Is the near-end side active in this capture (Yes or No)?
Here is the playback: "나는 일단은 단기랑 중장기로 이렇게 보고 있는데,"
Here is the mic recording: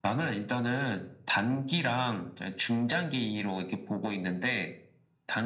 No